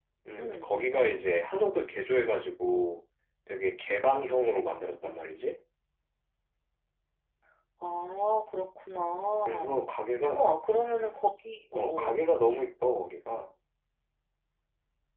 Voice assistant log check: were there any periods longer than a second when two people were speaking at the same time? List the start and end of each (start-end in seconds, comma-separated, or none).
none